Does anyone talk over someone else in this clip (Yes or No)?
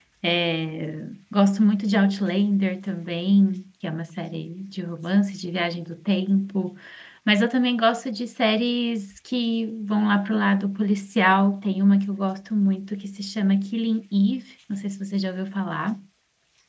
No